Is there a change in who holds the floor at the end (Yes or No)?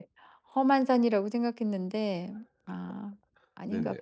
Yes